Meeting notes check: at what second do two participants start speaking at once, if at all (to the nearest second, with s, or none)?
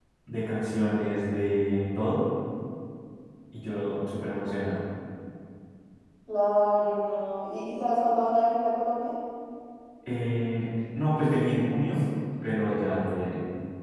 none